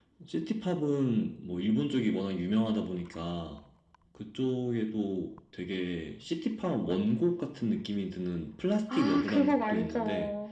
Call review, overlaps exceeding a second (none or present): present